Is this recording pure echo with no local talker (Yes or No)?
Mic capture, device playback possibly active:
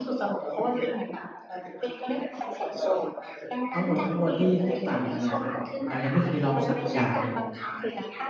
No